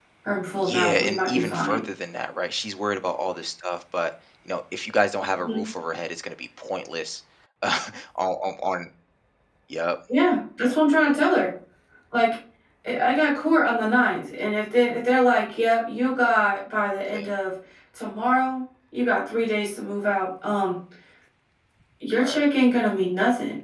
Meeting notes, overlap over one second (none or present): present